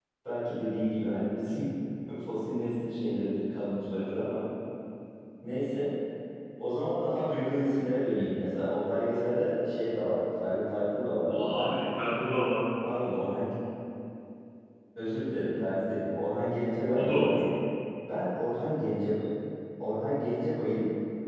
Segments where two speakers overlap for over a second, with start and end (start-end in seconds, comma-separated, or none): none